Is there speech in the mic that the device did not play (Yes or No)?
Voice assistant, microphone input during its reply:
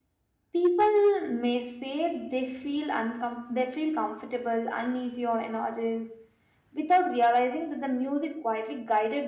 Yes